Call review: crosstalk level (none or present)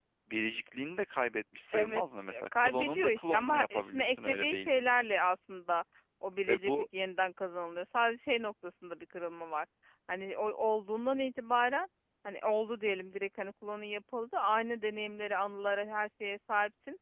present